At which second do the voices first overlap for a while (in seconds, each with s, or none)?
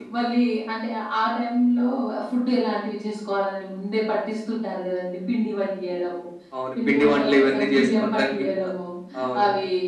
6.8 s